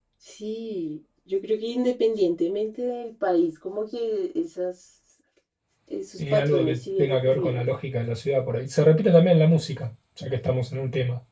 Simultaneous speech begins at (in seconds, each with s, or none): 6.2 s